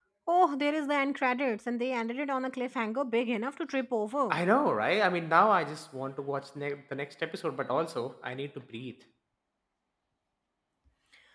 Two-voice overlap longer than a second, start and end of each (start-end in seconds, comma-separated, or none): none